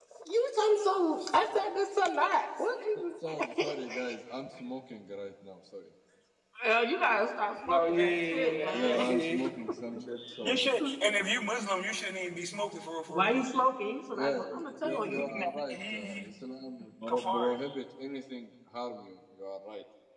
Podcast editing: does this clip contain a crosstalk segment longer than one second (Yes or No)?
Yes